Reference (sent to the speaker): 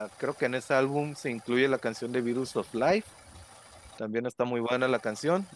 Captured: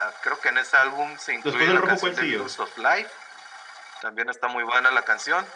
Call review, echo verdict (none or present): present